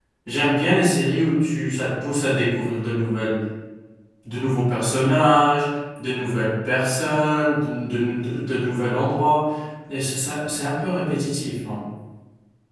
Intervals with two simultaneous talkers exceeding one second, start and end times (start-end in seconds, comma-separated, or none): none